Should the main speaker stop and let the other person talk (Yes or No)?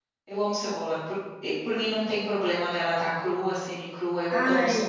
Yes